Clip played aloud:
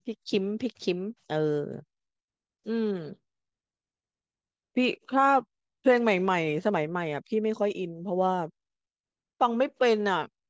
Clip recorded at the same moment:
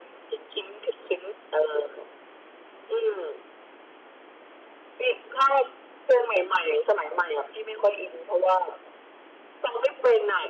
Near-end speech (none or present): none